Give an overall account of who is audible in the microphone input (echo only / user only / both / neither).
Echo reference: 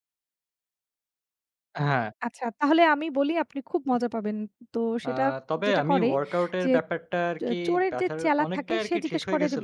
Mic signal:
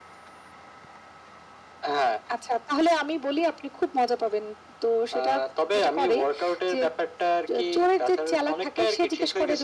echo only